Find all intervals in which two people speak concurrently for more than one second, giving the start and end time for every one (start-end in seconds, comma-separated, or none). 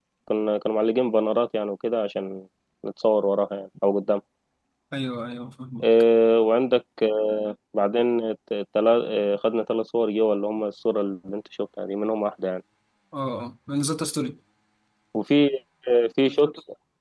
none